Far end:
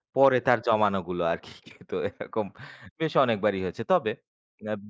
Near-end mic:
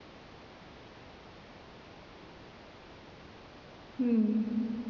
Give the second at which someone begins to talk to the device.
4.0 s

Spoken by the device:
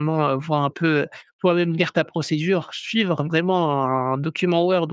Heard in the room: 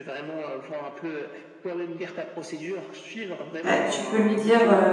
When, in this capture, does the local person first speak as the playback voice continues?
3.6 s

